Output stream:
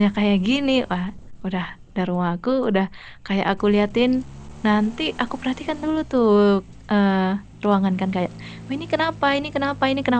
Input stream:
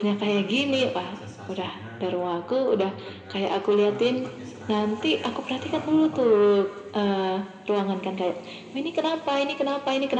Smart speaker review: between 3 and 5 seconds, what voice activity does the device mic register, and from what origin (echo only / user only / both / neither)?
both